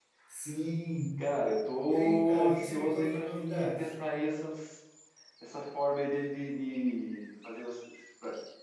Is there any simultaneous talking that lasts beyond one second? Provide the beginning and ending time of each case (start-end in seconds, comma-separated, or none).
1.9-3.9